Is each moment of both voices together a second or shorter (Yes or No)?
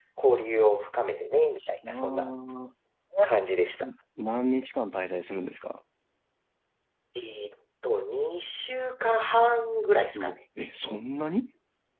Yes